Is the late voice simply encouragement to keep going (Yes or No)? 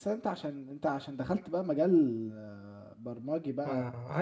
No